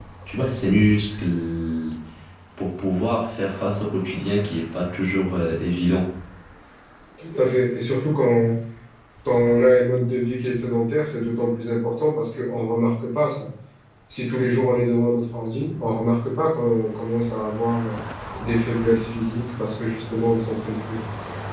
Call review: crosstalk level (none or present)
none